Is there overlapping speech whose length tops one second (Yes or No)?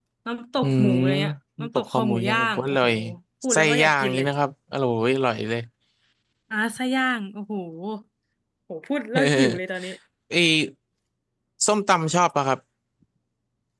Yes